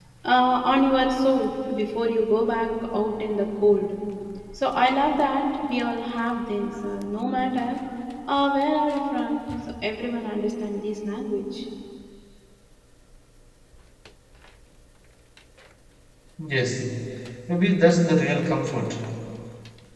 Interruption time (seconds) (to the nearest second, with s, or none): none